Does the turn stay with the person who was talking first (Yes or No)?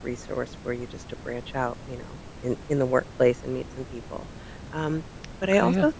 Yes